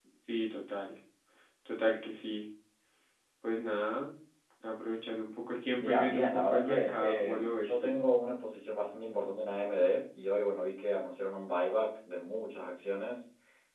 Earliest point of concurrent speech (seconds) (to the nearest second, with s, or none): 6 s